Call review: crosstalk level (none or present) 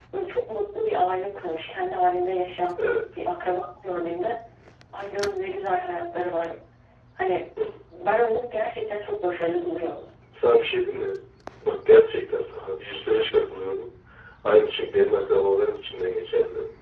none